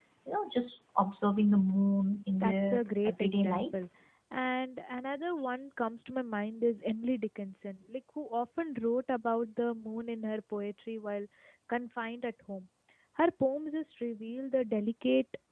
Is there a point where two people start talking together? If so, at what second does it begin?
2 s

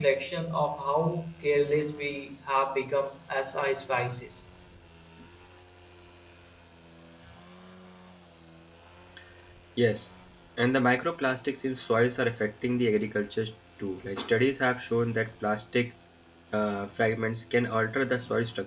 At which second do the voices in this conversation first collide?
none

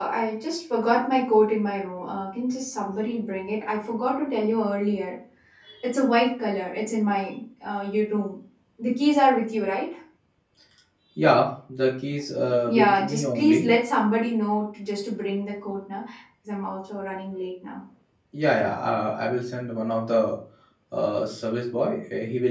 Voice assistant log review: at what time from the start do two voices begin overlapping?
12 s

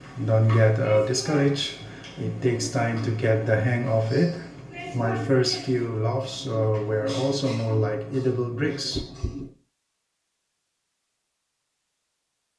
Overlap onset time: none

